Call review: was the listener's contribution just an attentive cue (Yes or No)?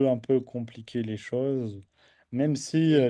Yes